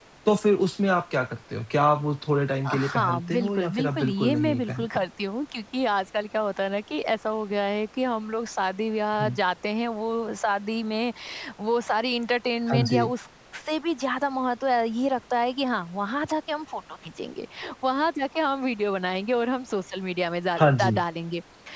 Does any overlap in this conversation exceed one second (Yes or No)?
Yes